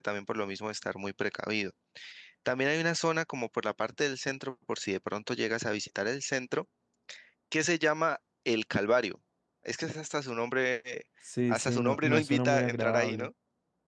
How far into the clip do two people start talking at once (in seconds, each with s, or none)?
11.5 s